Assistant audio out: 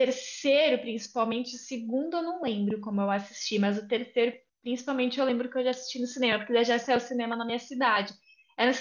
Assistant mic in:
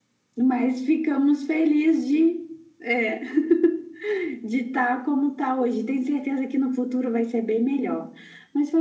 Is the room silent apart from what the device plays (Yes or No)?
No